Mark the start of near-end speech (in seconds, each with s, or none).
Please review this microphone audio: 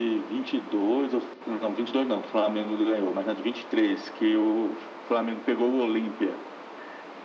none